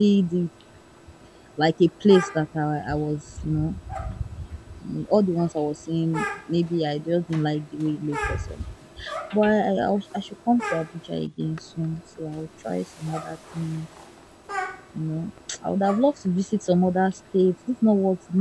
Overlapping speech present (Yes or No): No